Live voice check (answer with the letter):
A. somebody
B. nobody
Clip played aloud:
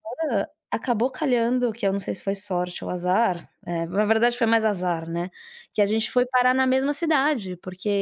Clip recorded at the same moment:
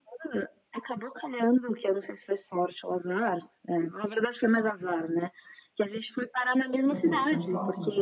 A